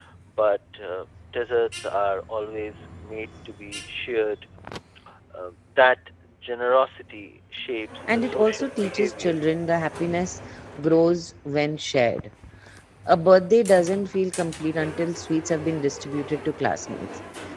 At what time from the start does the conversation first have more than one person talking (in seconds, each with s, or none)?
8.2 s